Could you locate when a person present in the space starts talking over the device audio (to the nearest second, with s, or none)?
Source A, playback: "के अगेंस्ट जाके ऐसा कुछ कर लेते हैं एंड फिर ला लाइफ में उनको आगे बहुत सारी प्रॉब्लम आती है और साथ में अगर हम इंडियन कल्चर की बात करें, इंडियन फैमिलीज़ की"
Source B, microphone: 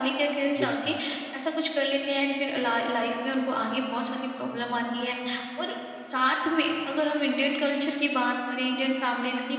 1 s